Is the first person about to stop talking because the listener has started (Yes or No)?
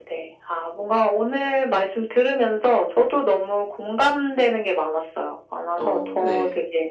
No